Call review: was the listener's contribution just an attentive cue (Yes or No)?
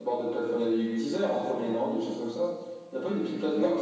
No